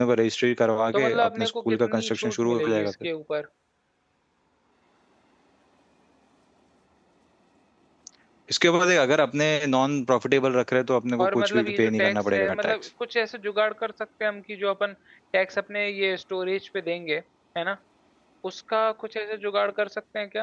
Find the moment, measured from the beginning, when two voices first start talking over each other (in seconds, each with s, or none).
0.9 s